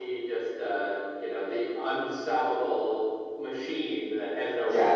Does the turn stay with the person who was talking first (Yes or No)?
No